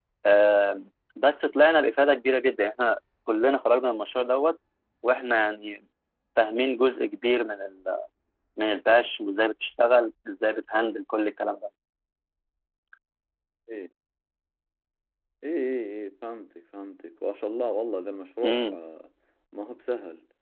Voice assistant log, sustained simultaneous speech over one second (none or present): none